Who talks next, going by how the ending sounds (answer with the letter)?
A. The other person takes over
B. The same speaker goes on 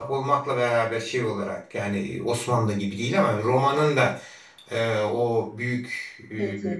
B